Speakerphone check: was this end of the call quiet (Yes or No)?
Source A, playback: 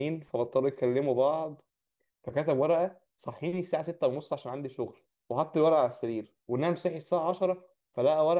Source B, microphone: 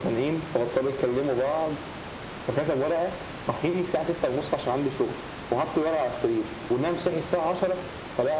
Yes